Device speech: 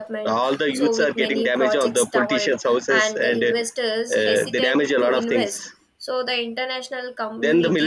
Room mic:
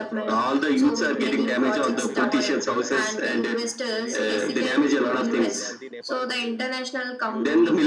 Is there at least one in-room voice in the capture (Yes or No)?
Yes